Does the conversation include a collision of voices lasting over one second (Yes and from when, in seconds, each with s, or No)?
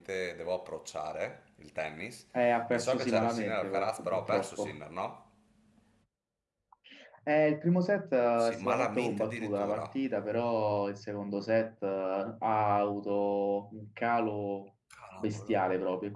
Yes, from 2.7 s